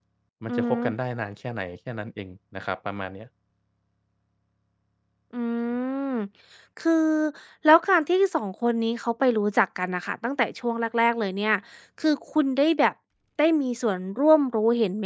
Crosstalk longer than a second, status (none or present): none